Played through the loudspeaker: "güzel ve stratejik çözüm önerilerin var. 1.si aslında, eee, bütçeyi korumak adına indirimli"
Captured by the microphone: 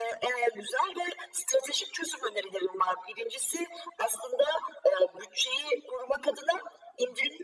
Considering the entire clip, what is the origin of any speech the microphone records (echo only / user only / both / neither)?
echo only